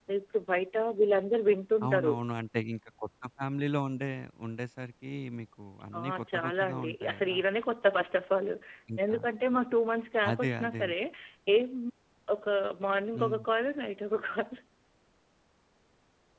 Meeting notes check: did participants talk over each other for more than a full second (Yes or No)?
Yes